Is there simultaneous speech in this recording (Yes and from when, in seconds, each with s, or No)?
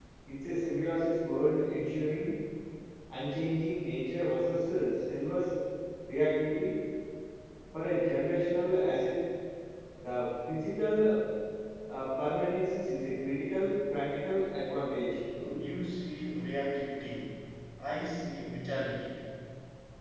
No